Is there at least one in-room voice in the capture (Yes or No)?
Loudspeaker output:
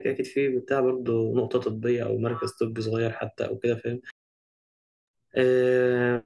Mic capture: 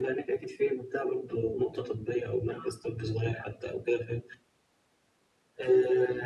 No